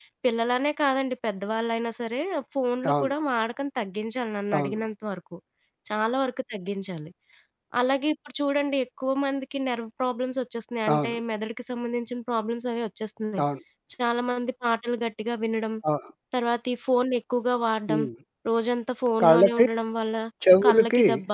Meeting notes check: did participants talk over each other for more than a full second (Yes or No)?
No